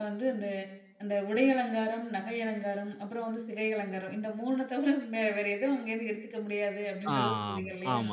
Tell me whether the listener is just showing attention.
No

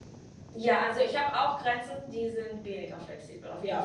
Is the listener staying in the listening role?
No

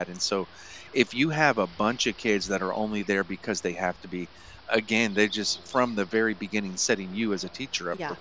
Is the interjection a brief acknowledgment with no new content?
Yes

